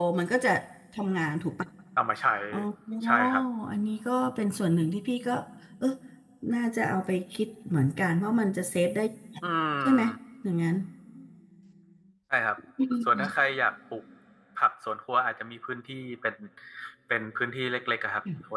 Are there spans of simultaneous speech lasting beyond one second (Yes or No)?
No